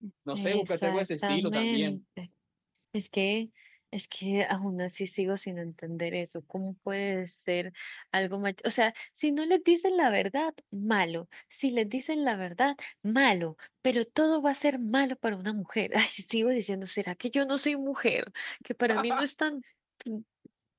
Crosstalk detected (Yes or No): Yes